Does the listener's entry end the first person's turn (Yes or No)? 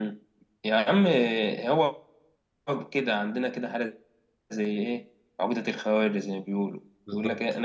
No